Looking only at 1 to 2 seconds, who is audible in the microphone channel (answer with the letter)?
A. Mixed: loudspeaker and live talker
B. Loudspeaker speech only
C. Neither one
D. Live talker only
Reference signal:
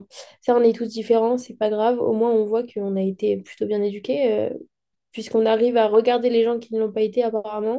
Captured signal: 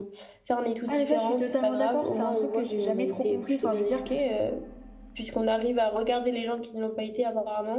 A